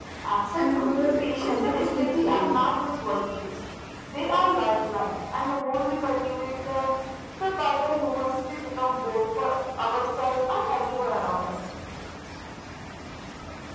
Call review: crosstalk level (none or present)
present